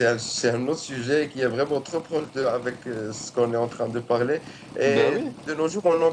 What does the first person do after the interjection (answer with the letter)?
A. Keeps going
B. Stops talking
A